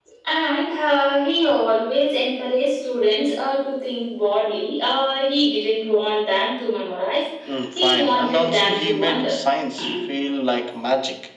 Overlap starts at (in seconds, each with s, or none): 7.8 s